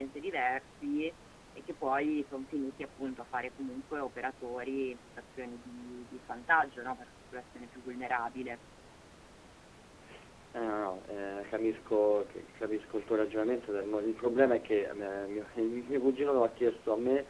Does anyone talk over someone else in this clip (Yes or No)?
No